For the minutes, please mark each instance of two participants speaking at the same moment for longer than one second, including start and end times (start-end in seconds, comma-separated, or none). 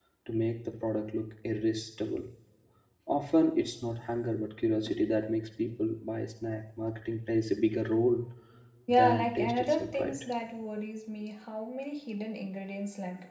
8.9-10.2